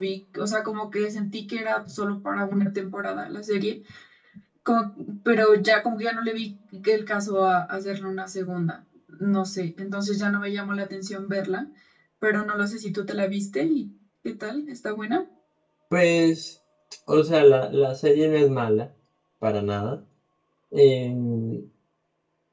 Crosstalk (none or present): none